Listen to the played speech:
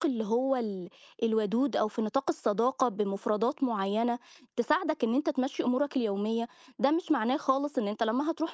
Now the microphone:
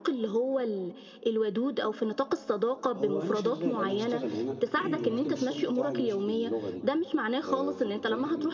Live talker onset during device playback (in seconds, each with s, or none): 3.0 s